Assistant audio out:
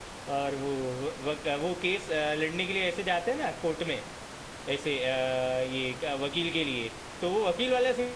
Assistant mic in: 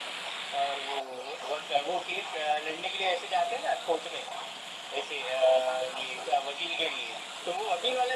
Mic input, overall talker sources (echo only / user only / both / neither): echo only